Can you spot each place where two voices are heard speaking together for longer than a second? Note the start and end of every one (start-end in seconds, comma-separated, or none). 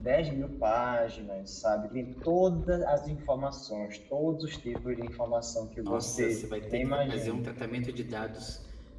5.8-7.4